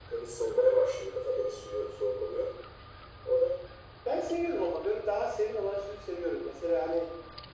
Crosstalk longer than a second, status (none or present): none